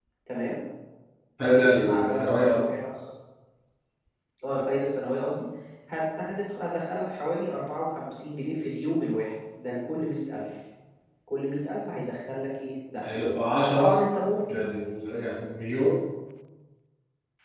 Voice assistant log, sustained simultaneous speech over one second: present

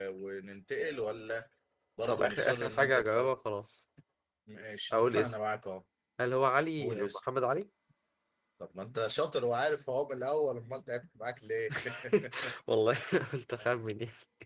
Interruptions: present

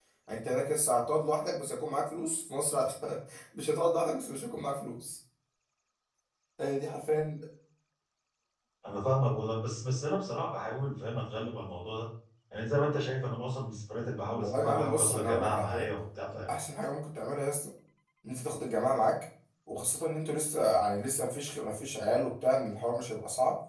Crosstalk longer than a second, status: present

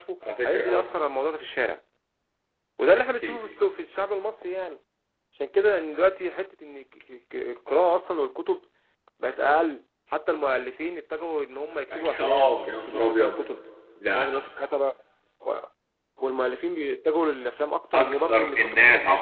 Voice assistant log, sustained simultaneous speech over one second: present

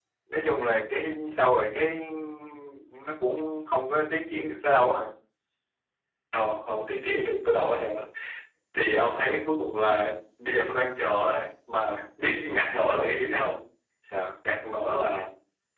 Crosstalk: none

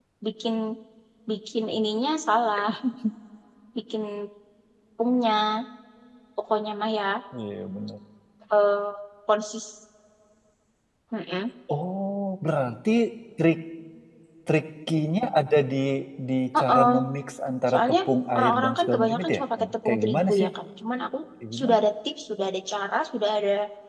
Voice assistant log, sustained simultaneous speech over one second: present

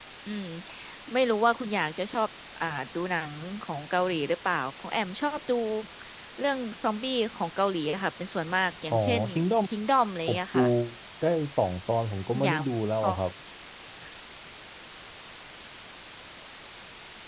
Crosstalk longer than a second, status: none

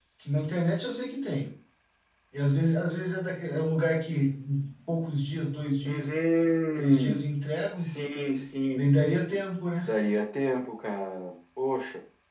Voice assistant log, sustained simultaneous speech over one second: none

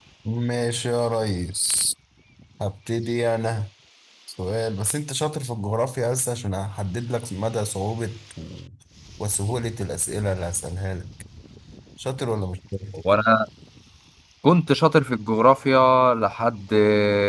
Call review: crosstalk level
none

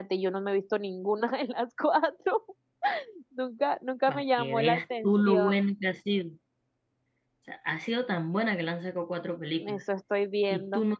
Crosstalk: present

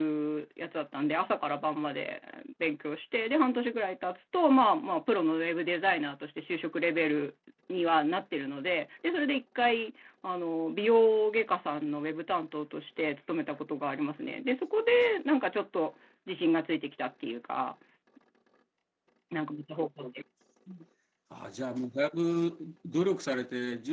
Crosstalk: none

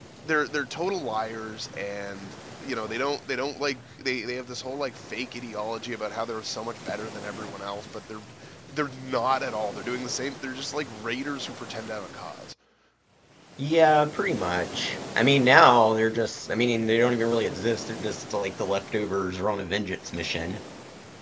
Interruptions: none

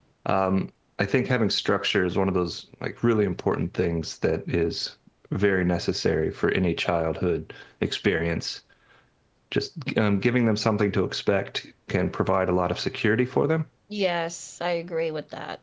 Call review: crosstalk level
none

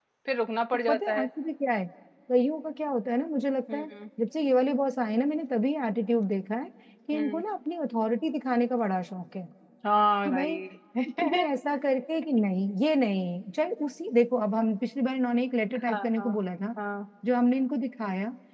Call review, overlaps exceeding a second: none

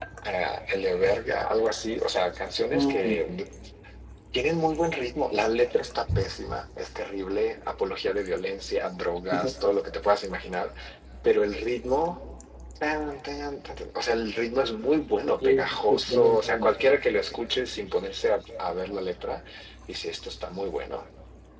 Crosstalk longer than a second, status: present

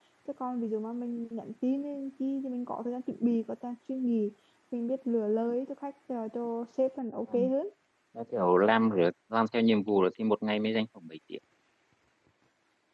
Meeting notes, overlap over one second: none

